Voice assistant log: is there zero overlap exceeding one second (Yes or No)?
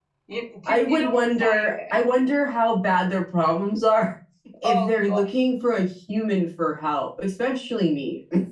No